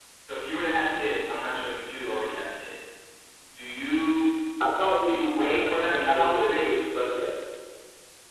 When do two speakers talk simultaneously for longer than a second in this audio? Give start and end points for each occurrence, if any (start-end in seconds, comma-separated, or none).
5.0-6.7